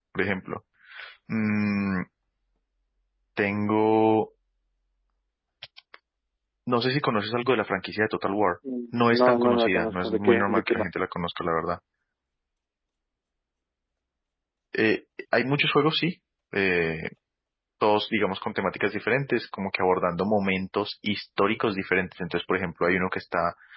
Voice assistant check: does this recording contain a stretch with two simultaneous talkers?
Yes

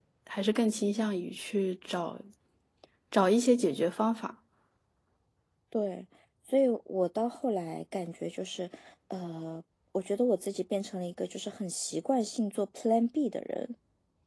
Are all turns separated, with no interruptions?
Yes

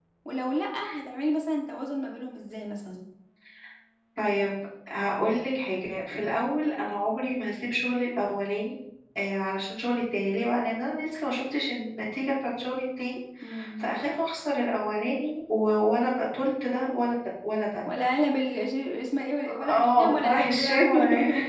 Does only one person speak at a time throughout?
No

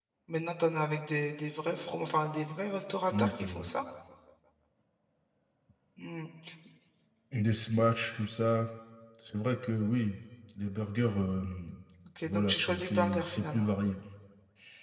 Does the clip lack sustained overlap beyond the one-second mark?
No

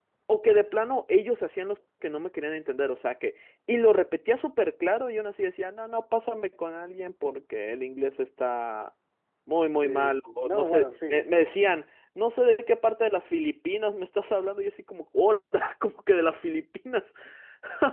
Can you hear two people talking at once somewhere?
Yes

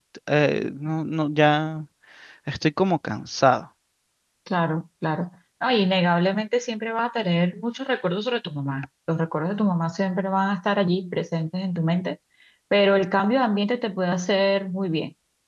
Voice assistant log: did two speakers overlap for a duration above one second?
No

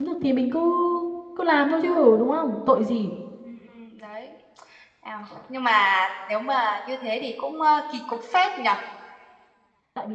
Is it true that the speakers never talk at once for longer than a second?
Yes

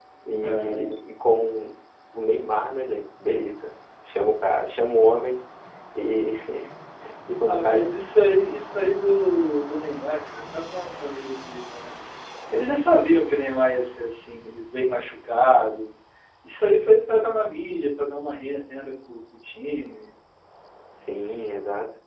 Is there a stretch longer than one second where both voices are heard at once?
No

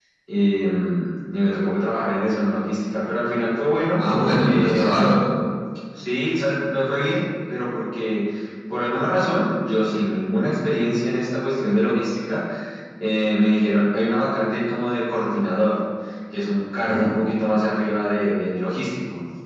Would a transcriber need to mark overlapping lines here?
Yes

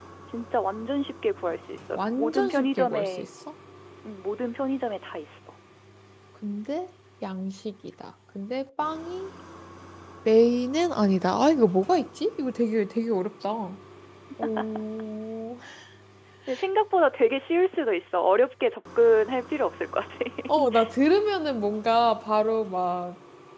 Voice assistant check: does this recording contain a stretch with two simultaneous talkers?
Yes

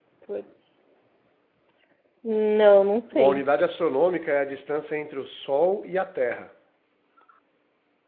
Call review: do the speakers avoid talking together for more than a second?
Yes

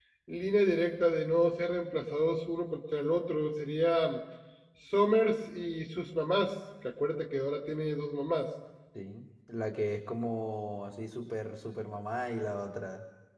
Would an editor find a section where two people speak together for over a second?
No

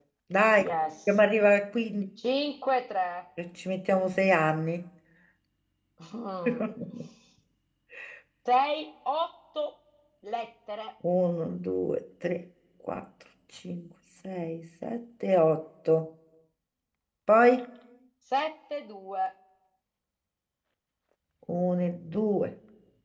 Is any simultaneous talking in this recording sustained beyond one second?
No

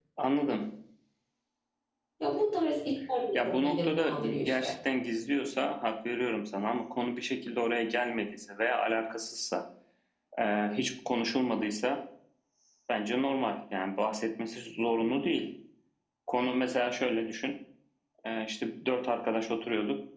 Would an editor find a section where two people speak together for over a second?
Yes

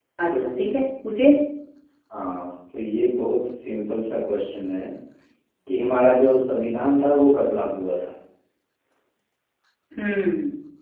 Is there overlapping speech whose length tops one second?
No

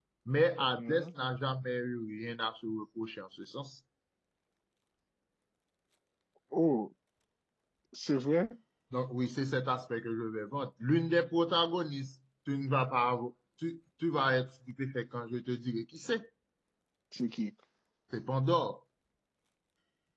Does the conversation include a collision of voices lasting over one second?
No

